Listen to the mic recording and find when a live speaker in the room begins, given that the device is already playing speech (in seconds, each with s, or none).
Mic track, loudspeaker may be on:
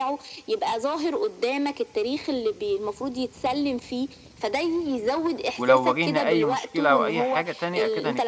5.5 s